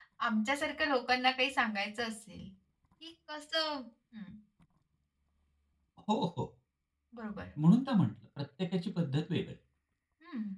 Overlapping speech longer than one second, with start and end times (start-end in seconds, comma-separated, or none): none